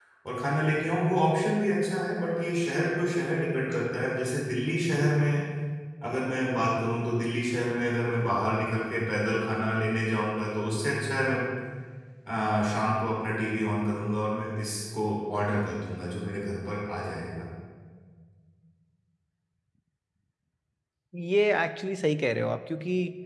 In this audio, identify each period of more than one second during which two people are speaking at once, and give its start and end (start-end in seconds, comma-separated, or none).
none